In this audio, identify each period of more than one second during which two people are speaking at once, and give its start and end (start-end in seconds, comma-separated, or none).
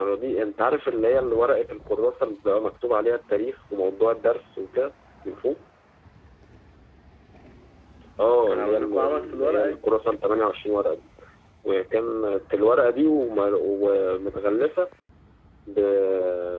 8.3-9.8